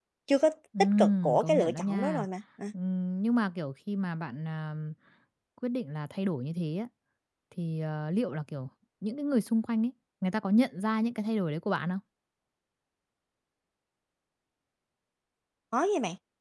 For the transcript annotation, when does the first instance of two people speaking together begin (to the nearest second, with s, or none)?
1 s